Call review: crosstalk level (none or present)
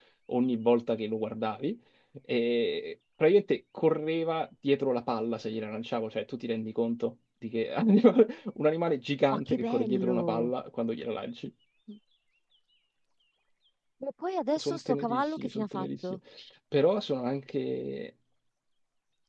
present